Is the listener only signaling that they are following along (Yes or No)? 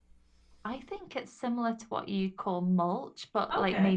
Yes